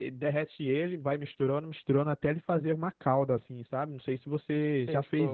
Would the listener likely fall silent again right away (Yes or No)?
No